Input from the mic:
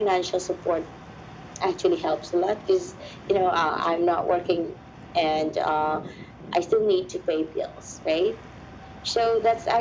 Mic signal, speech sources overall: echo only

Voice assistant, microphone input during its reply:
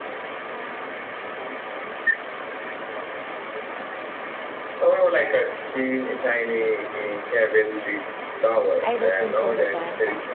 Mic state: both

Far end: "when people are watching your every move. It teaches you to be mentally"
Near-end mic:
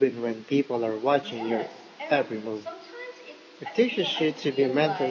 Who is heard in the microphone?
both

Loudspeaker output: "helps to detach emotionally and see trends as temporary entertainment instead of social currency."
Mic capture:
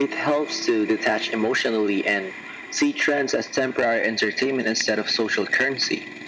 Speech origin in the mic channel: echo only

